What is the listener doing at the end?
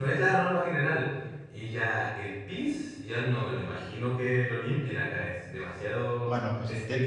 taking over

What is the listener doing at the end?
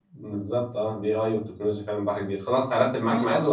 taking over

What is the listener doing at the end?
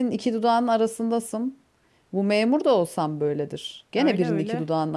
listening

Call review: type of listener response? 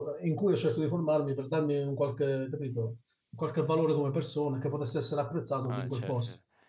taking over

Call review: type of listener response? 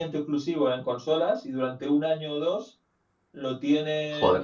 listening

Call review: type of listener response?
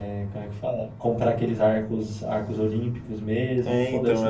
taking over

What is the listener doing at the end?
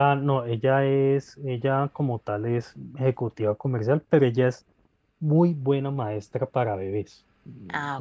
listening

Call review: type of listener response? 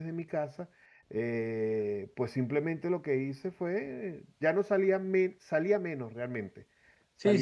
taking over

